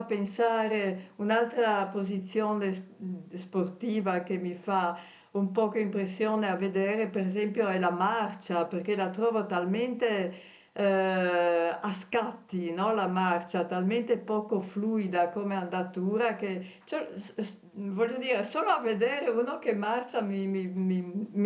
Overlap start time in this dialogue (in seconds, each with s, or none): none